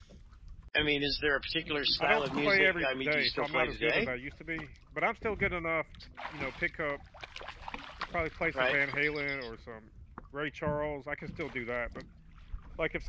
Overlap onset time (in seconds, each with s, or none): 2.0 s